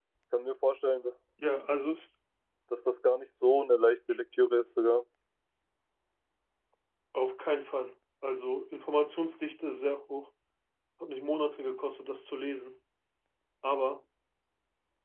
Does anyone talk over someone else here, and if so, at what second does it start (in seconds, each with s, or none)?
none